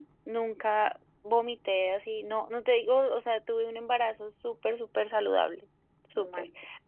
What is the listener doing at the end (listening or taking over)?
listening